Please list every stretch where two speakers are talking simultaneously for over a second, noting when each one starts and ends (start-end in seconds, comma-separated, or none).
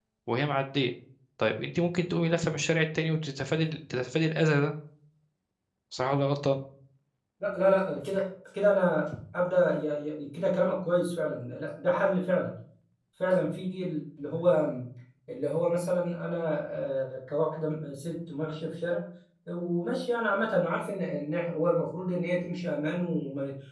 none